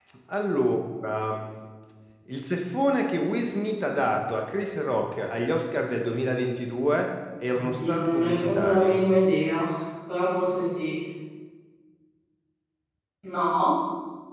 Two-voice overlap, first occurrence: 7.5 s

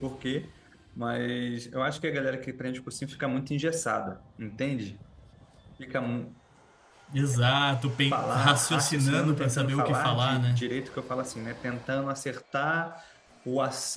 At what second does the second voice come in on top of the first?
8.1 s

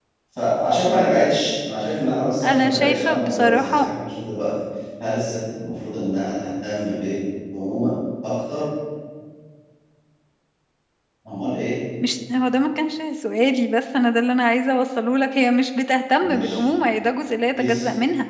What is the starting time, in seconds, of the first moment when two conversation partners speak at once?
2.4 s

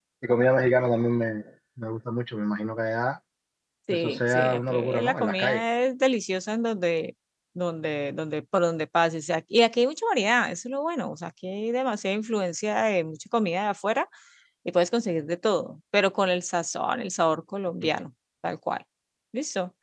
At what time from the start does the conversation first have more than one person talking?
3.9 s

